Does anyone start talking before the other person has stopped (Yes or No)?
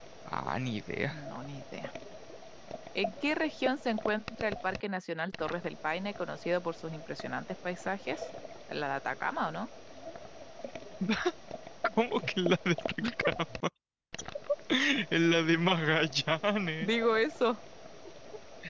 No